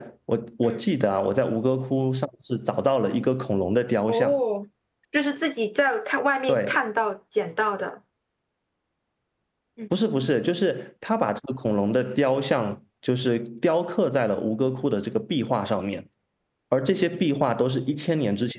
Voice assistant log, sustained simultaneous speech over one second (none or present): none